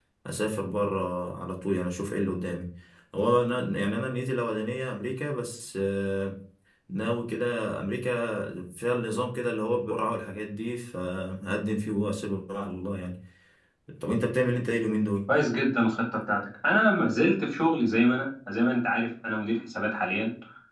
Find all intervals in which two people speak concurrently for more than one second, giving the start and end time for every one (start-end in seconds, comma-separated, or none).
none